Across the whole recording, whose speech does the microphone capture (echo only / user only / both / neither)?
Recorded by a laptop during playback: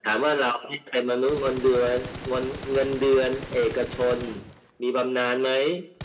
echo only